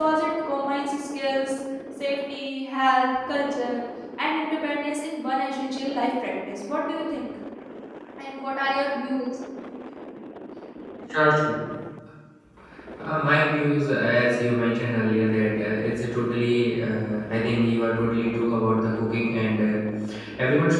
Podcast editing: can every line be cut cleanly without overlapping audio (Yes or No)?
Yes